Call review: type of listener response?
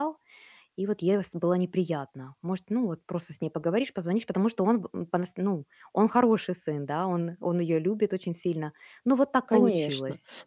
taking over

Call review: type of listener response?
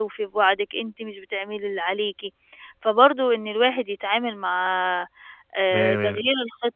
listening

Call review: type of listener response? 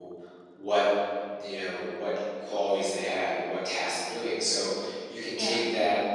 listening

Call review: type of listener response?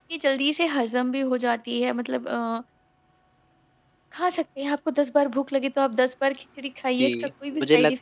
taking over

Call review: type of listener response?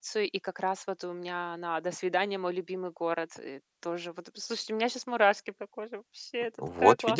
taking over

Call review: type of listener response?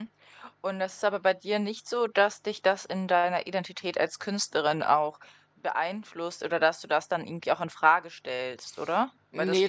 taking over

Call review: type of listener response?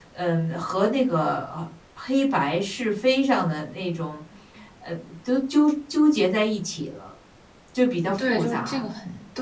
taking over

